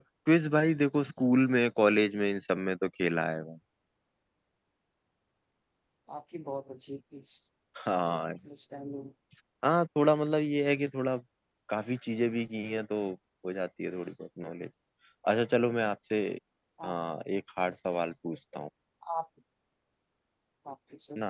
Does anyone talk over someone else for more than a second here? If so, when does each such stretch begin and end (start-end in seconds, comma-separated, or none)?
none